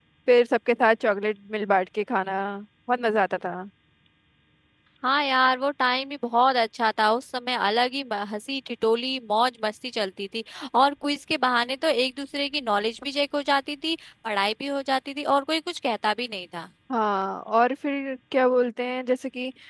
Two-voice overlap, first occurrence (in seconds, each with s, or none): none